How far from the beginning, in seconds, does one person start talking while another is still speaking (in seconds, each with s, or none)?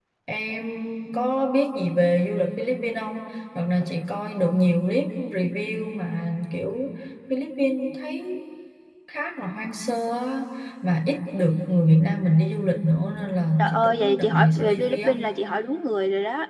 13.6 s